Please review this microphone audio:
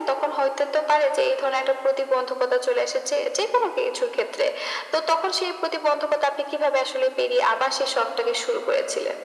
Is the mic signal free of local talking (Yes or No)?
Yes